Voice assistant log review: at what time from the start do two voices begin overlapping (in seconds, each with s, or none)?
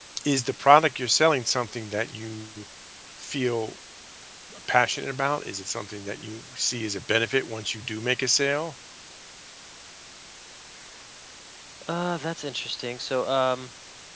none